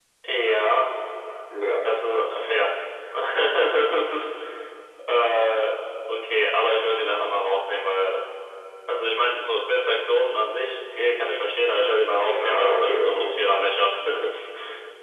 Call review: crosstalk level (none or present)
present